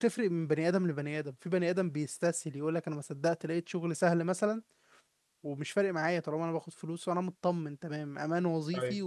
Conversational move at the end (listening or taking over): listening